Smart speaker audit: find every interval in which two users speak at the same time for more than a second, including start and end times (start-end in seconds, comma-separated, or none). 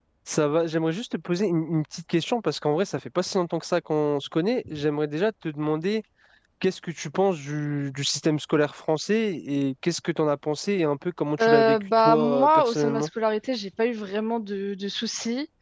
11.4-13.1